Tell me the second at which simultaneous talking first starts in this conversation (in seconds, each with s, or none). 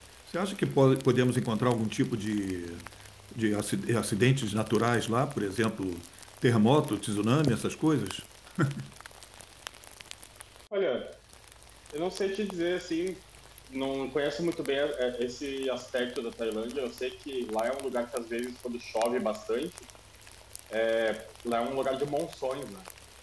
none